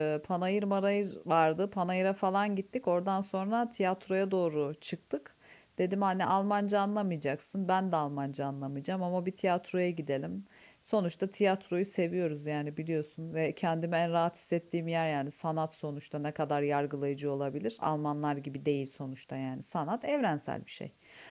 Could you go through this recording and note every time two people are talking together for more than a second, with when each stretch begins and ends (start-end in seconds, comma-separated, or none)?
none